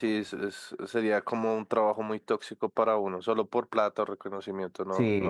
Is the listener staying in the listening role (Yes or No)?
No